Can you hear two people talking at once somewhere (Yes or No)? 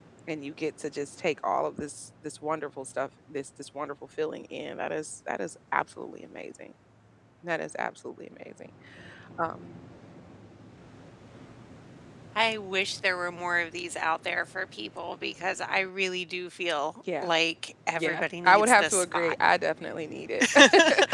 Yes